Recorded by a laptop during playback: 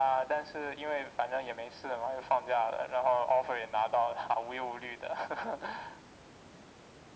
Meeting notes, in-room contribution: none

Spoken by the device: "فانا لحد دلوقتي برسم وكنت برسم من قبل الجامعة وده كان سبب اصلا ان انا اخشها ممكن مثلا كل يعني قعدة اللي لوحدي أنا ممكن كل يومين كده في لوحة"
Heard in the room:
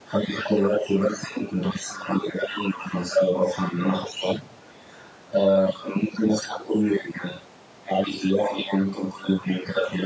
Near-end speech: none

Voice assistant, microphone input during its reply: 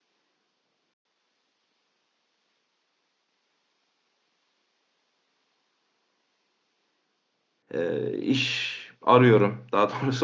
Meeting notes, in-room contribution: present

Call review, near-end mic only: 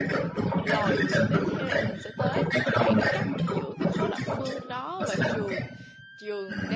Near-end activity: present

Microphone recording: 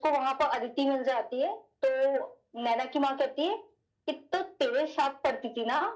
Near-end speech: none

